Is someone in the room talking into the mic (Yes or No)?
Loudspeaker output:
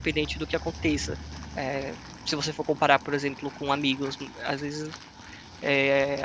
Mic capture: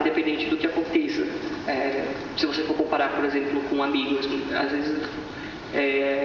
No